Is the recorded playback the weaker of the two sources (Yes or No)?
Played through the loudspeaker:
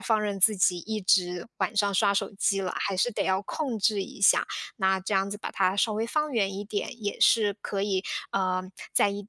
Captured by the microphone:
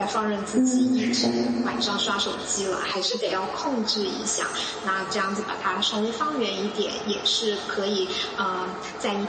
Yes